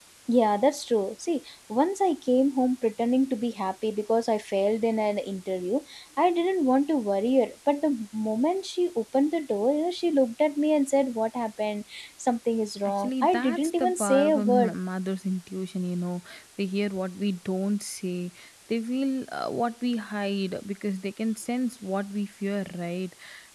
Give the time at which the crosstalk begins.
13 s

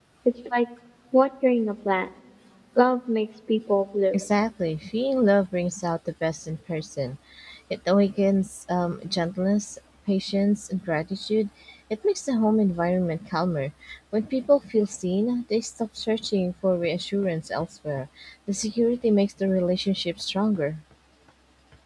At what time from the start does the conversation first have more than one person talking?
none

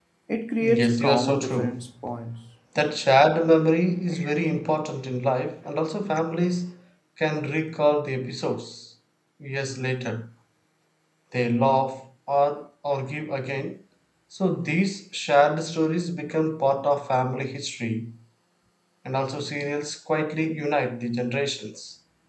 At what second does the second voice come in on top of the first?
1 s

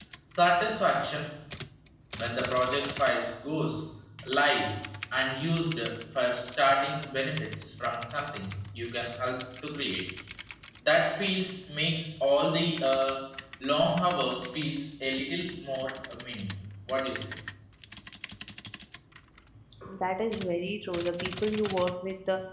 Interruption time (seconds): none

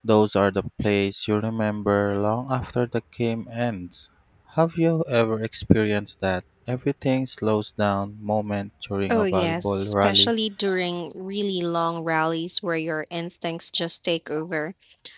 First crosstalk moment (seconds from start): 9 s

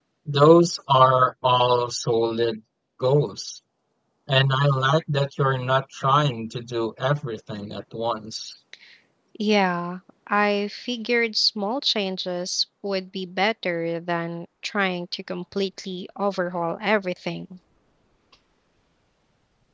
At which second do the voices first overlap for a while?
none

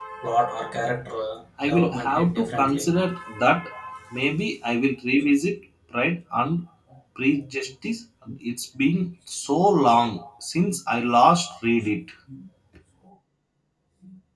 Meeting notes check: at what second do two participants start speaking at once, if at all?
2 s

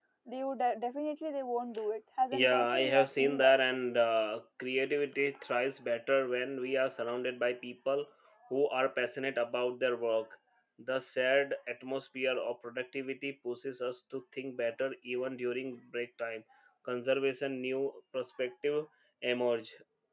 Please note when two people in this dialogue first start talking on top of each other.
2 s

